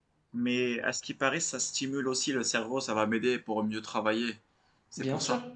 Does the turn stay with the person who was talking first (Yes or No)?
No